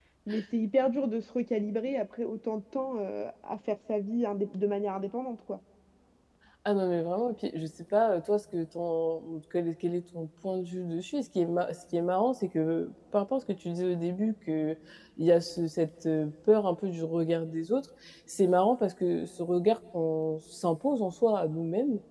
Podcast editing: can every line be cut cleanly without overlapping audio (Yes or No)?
Yes